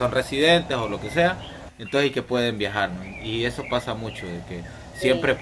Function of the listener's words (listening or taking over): listening